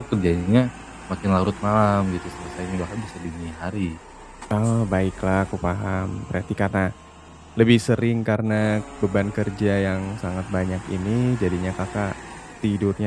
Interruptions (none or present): none